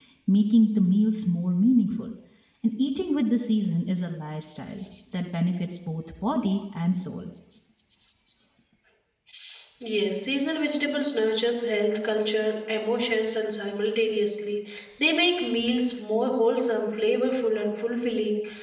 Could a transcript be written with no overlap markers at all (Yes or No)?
Yes